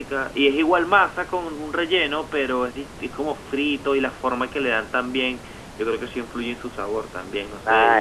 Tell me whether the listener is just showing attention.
No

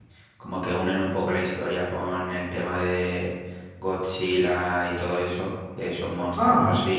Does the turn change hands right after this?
No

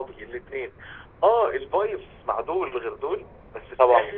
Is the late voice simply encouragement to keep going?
Yes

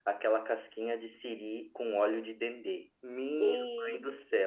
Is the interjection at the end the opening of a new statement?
No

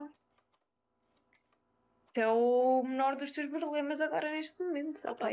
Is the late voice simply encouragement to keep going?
No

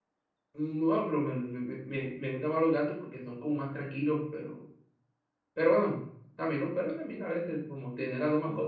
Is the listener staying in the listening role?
No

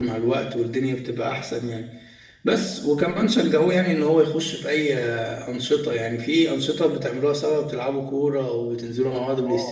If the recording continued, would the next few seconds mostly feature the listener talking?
Yes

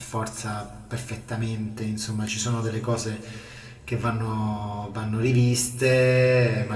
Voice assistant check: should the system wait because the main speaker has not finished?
Yes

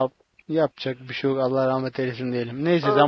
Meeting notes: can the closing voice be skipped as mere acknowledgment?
Yes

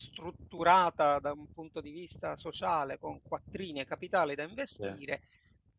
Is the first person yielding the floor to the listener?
No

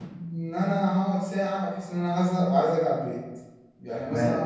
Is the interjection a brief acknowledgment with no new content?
Yes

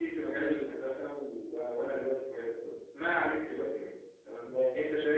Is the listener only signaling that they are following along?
Yes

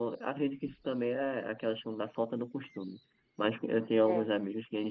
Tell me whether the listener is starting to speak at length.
No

